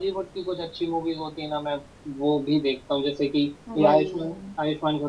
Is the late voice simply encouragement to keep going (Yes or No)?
Yes